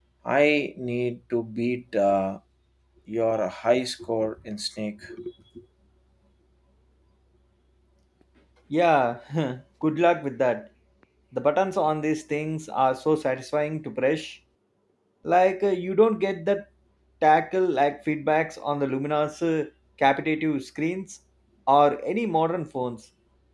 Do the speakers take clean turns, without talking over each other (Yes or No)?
Yes